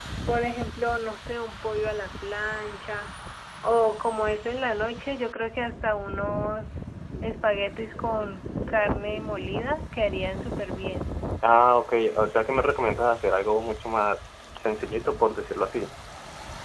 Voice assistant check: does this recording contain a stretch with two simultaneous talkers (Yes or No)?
No